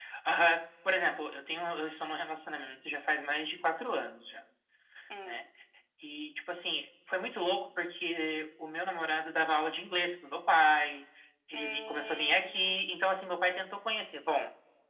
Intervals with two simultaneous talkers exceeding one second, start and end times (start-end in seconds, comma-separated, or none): 11.5-12.8